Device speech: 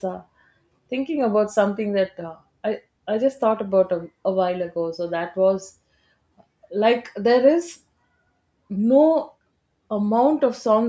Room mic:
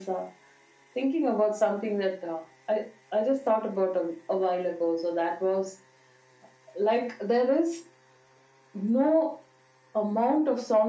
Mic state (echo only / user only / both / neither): echo only